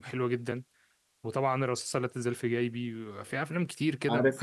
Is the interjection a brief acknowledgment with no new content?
No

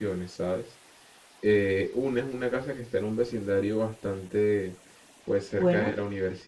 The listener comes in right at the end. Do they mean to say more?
No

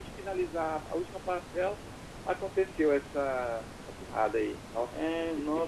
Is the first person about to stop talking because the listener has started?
Yes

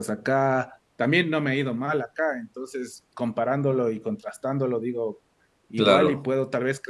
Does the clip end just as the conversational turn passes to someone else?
No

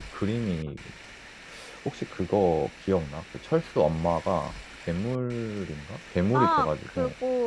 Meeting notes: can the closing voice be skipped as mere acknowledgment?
No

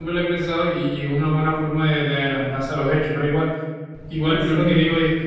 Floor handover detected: No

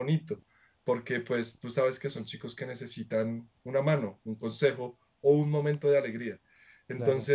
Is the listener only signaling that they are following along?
Yes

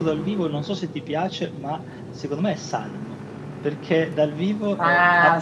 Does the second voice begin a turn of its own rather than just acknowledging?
Yes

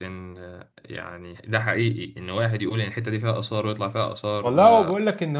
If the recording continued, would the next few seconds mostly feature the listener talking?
Yes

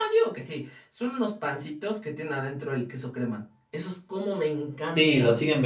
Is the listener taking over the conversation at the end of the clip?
Yes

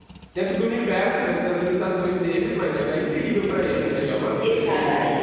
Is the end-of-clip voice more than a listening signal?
Yes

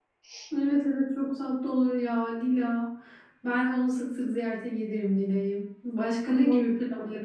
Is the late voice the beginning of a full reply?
No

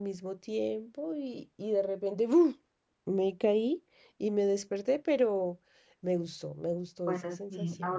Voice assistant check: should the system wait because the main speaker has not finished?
No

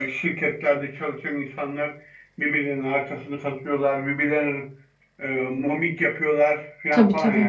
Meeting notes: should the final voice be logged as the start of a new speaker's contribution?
No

